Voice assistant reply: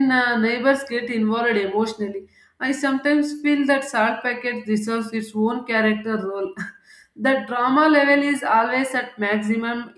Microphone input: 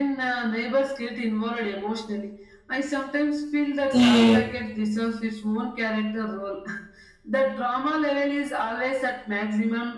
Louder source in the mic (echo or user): user